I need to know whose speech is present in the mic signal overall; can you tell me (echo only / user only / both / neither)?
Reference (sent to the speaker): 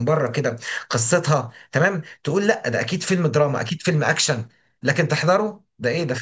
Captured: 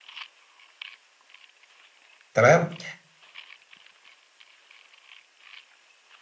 user only